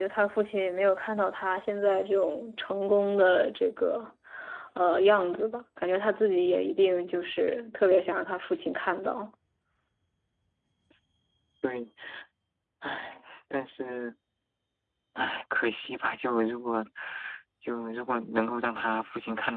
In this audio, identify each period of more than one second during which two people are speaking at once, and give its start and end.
none

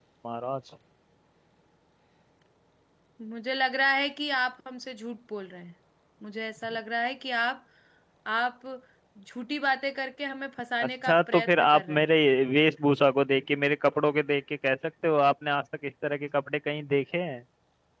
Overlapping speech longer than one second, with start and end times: 10.8-12.1

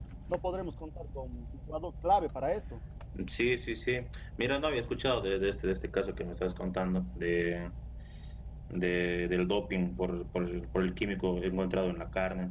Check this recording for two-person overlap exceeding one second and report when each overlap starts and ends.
none

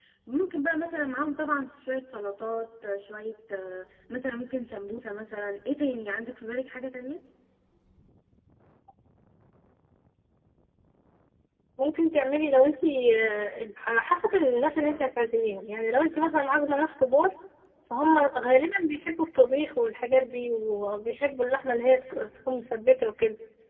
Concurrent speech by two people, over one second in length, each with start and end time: none

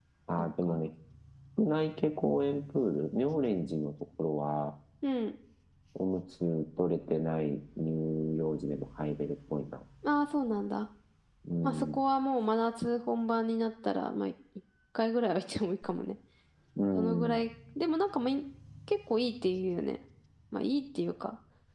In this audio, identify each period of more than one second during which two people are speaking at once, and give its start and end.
none

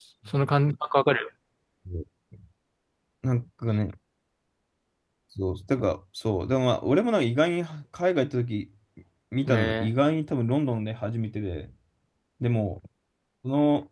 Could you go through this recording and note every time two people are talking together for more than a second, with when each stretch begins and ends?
none

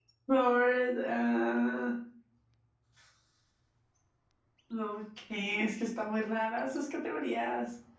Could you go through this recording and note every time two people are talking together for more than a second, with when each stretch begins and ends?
none

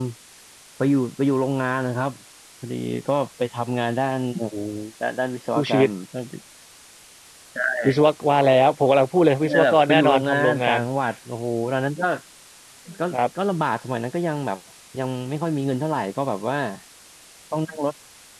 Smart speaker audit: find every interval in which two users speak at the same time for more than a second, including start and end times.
9.4-10.8

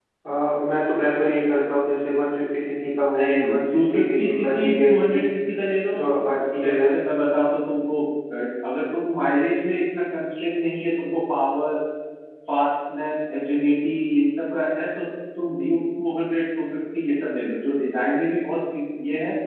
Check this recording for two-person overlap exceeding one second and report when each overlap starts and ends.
3.2-5.2

